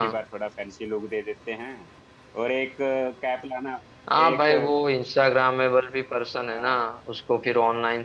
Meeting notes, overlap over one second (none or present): none